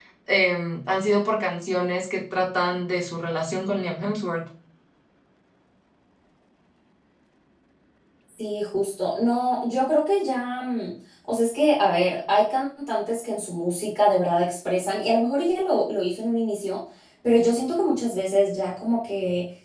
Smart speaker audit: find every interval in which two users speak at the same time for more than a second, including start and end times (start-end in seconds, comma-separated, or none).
none